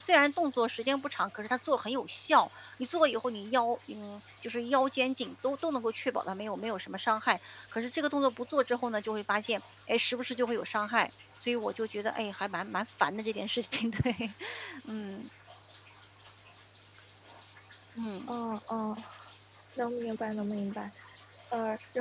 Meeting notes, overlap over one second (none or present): none